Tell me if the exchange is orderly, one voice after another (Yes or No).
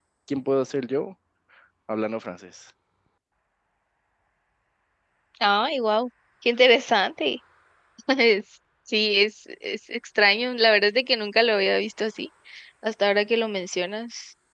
Yes